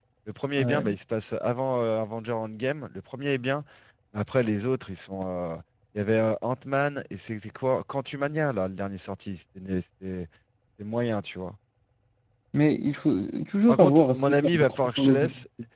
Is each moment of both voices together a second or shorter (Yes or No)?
No